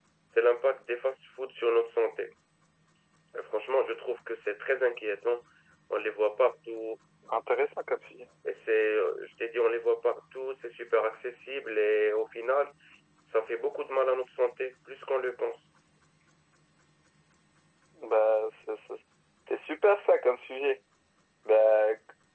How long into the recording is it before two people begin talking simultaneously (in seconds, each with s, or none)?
none